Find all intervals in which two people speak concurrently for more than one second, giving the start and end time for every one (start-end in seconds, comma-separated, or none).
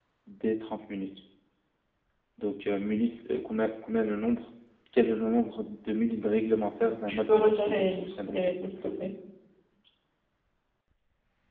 7.1-8.4